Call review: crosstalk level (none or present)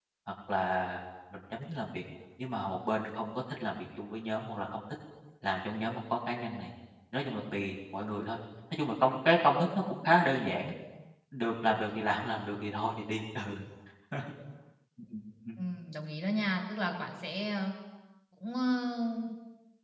none